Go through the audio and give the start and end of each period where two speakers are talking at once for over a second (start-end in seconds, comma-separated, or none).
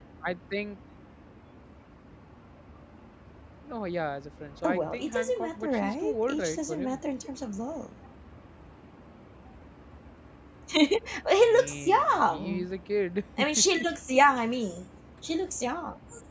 4.6-7.0, 11.4-12.7